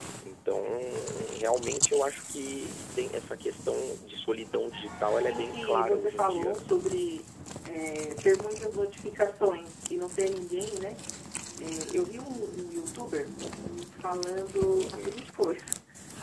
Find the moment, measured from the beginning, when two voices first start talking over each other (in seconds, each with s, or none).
5.1 s